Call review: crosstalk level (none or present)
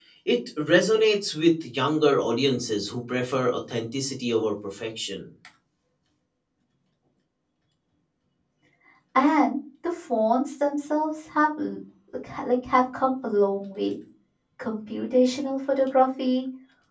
none